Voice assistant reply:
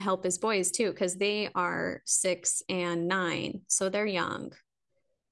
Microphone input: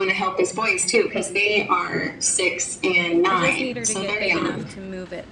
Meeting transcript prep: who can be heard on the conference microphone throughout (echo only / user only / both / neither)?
both